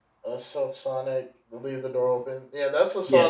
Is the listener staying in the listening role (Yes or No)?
Yes